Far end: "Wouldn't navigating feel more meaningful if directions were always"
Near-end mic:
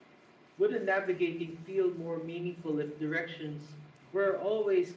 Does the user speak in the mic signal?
No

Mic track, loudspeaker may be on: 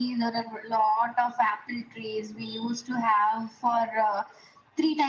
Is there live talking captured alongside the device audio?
No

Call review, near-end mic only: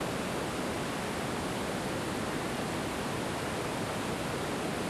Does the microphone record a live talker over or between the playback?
No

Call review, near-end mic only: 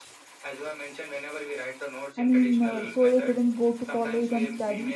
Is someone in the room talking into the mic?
Yes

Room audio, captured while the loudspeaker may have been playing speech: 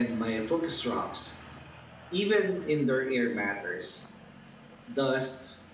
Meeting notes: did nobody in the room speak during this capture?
Yes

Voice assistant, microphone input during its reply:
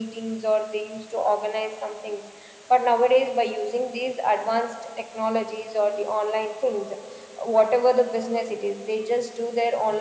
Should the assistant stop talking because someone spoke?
No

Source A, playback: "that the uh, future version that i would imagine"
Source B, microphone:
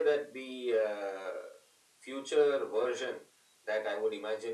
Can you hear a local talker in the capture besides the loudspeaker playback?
No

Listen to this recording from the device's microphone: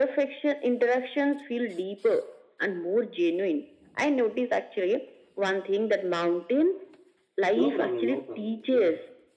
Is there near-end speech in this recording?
Yes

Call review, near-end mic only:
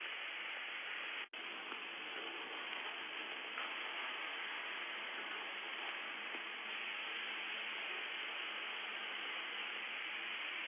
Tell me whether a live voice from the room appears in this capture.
No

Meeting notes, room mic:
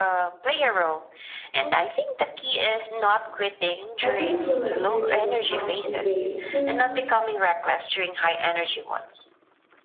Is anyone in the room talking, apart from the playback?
Yes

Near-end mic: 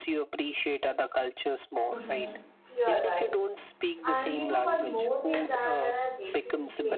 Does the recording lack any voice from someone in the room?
No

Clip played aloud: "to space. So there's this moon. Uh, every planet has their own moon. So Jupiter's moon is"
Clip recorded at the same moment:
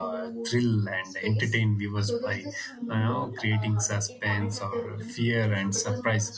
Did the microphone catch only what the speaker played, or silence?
No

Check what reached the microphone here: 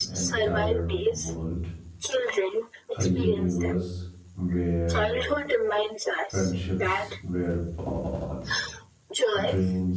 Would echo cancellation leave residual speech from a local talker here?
Yes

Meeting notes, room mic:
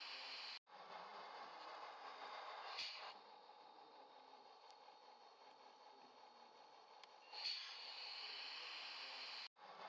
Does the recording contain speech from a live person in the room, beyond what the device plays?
No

